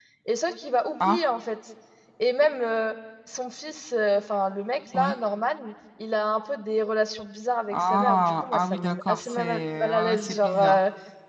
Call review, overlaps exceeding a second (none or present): present